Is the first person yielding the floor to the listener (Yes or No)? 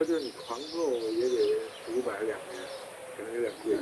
Yes